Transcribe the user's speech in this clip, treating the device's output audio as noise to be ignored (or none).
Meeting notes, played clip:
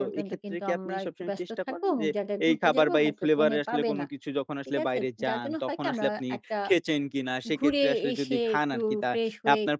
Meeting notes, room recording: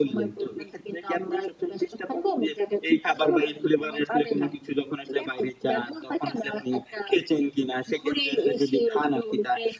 none